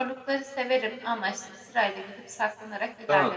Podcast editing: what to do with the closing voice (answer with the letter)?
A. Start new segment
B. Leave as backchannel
A